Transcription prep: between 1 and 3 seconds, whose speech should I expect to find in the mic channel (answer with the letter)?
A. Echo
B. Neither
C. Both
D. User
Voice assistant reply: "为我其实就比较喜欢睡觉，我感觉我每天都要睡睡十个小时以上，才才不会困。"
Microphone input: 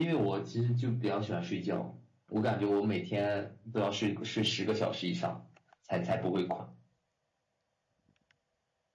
A